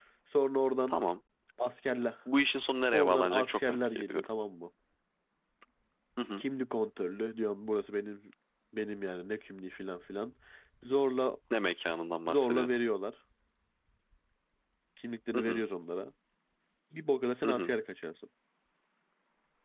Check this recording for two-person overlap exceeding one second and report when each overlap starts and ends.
2.9-4.3

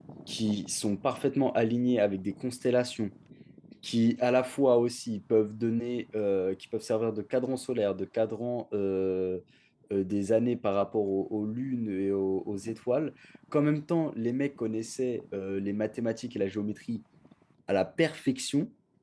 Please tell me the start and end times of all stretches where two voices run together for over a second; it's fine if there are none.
none

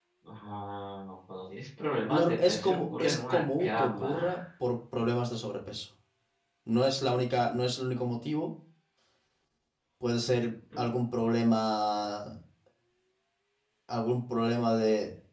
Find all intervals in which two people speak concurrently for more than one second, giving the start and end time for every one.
2.1-4.2

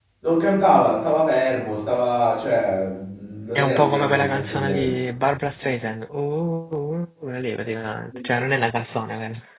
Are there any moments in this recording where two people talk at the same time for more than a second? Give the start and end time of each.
3.6-5.0

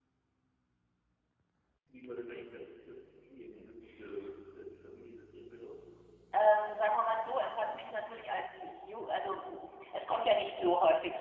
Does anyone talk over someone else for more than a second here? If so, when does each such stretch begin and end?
6.8-8.1

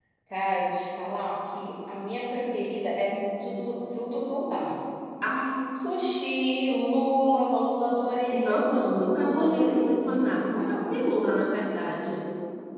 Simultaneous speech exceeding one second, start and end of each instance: 8.3-11.1

